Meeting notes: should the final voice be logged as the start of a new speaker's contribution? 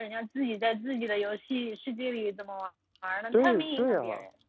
Yes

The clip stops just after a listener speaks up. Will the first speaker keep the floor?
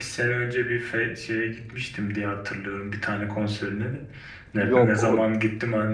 Yes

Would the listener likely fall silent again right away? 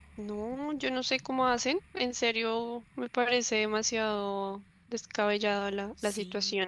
No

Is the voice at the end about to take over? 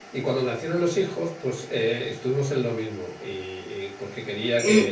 No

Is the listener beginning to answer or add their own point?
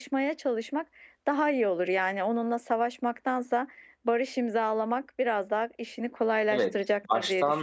Yes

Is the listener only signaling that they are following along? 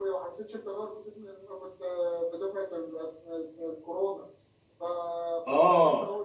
Yes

